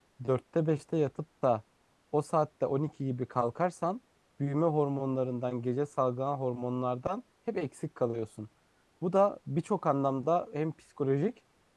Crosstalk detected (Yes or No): No